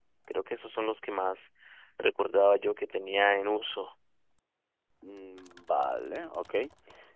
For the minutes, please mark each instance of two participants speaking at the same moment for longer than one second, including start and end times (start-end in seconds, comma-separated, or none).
none